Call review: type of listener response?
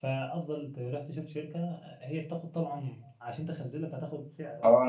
taking over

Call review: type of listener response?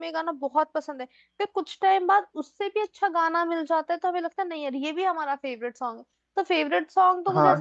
taking over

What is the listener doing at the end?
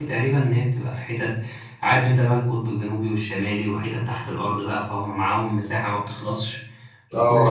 taking over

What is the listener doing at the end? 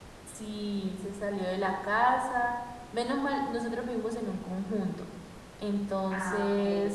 listening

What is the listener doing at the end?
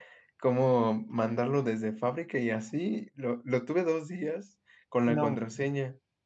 listening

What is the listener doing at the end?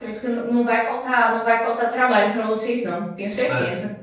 taking over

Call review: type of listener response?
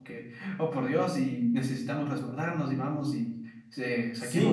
taking over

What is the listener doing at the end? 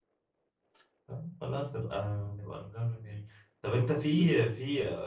listening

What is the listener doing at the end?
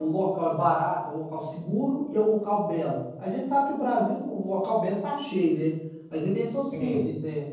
listening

